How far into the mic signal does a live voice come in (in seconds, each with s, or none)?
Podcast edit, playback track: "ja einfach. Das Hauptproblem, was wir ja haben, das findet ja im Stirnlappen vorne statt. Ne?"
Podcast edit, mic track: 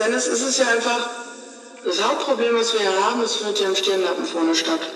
none